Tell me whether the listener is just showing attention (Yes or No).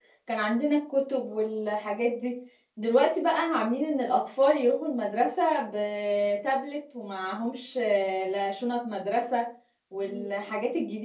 Yes